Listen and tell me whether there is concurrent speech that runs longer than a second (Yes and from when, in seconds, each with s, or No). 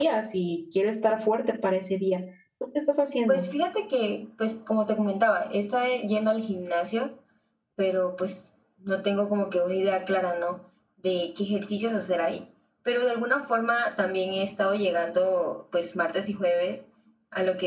No